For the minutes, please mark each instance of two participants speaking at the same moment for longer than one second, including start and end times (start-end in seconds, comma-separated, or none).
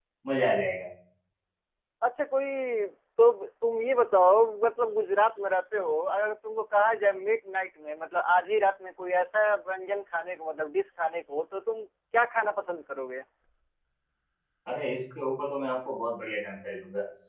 none